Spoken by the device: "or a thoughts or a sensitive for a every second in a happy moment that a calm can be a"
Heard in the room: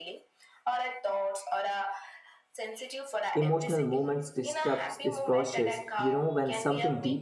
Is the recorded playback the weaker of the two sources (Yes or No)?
Yes